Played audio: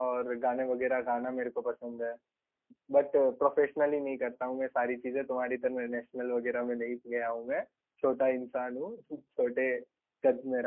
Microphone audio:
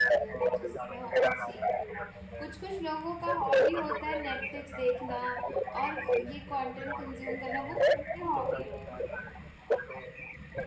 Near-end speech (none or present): present